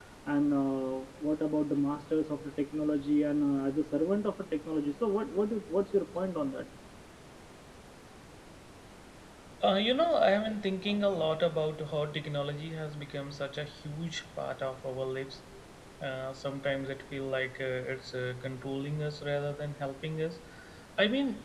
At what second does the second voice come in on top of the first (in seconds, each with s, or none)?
none